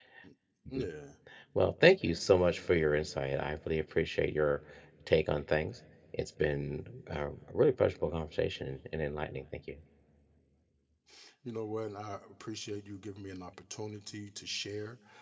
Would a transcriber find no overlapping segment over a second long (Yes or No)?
Yes